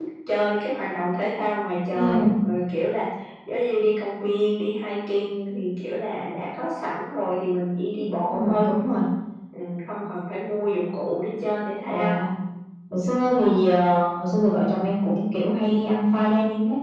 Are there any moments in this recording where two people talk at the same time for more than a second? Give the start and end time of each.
none

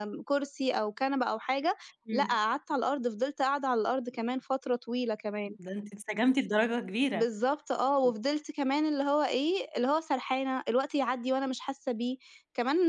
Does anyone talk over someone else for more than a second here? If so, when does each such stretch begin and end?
none

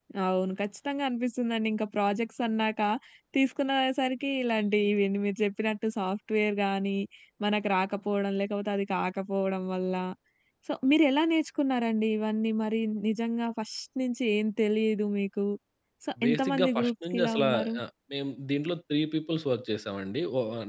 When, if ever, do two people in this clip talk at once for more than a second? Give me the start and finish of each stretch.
16.2-17.8

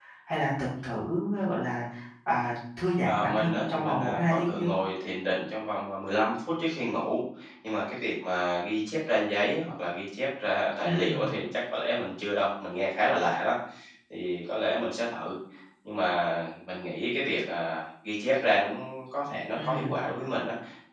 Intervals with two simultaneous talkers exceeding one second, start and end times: 3.0-4.7

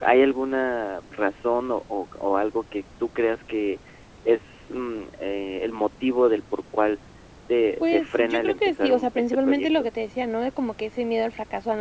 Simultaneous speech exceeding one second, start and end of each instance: 7.8-9.9

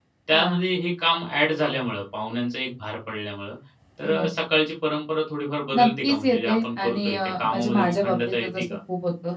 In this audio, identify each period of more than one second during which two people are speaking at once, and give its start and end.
5.8-8.8

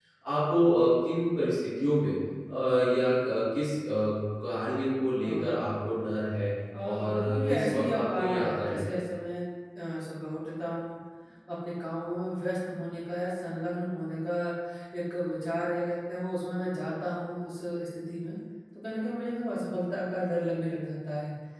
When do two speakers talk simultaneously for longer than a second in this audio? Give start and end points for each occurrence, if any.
6.8-9.0

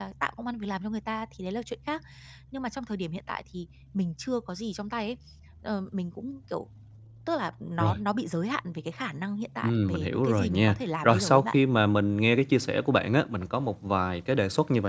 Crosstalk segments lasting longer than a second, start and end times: 9.6-11.6

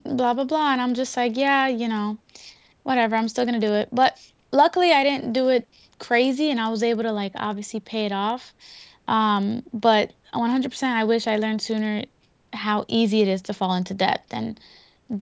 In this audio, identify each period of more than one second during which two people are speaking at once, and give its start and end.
none

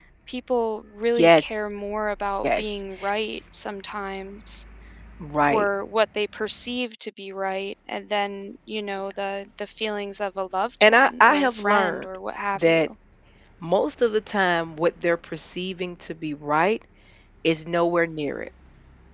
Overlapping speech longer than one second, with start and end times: 10.8-12.1

